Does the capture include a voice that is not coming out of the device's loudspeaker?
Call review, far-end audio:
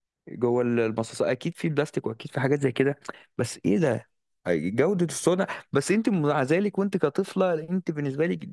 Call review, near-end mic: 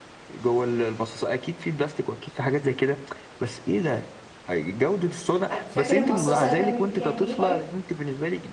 Yes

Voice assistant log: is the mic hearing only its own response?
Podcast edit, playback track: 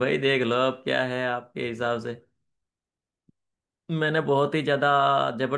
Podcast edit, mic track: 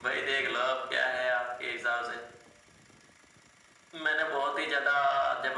Yes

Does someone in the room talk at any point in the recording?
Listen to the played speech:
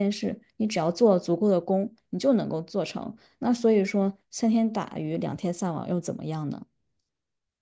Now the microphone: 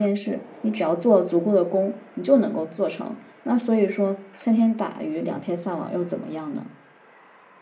No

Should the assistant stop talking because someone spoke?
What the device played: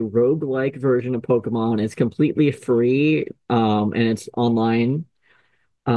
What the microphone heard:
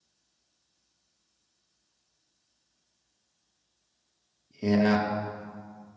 Yes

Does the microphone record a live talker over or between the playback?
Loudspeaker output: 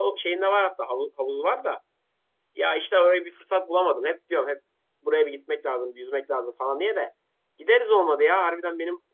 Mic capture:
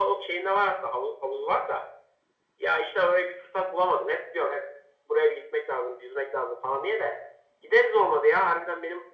No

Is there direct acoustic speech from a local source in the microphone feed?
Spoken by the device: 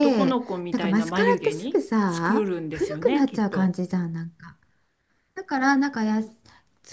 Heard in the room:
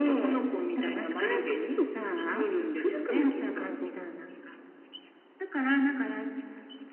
No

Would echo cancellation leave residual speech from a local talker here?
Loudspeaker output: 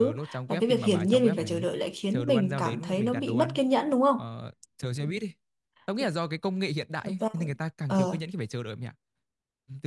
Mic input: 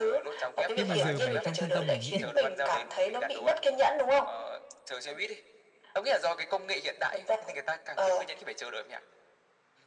Yes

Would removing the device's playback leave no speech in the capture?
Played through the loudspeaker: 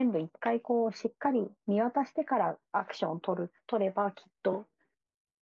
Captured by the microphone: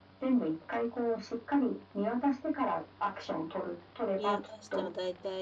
No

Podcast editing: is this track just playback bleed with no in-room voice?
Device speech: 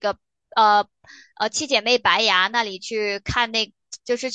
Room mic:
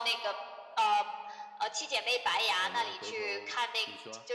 No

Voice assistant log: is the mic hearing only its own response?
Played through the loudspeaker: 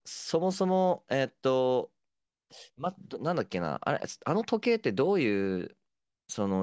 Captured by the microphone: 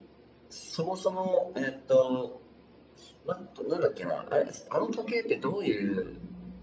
Yes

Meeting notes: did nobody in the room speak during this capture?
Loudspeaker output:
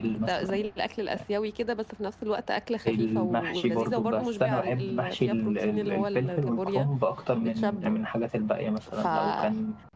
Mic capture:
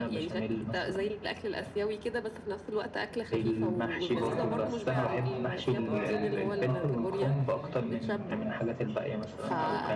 No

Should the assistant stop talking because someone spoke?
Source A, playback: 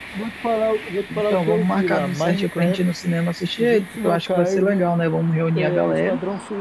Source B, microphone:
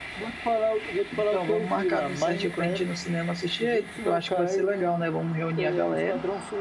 No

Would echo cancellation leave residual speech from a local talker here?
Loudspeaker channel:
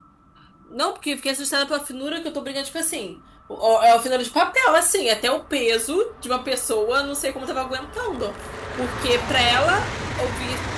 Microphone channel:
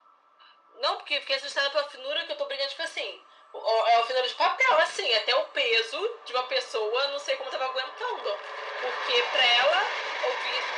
No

